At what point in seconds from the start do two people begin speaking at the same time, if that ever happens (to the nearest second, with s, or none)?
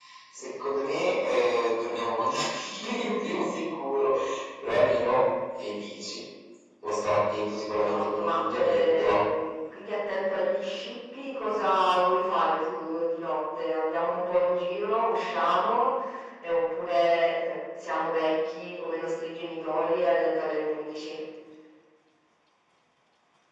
8 s